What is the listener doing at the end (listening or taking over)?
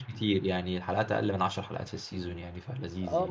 taking over